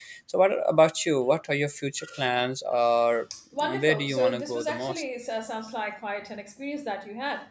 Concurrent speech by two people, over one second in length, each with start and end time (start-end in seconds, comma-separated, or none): 3.6-5.0